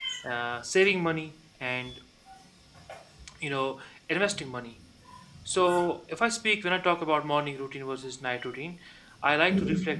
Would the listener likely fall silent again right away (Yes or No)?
Yes